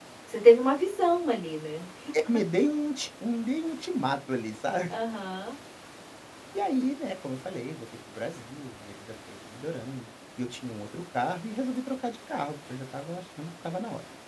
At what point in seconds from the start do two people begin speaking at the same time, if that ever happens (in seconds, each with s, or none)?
none